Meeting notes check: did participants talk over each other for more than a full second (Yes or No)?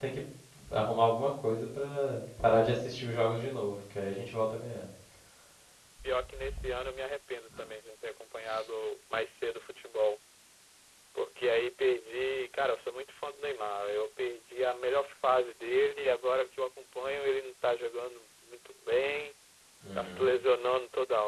No